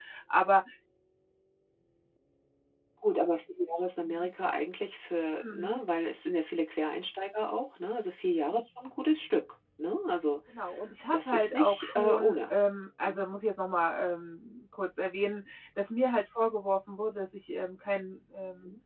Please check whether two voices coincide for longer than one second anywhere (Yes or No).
Yes